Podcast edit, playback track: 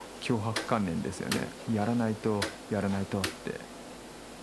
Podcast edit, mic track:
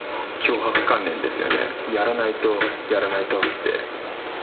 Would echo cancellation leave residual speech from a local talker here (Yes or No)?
No